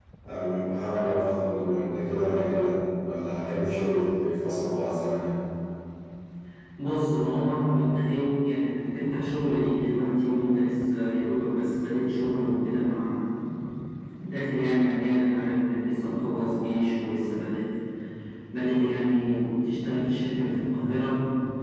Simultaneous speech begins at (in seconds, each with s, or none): none